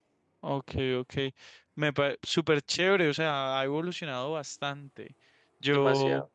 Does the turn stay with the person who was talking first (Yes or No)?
Yes